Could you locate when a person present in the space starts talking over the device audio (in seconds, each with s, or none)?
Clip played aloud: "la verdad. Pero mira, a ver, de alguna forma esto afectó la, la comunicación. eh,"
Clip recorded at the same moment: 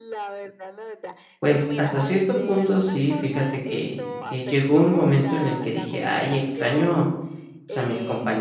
1.4 s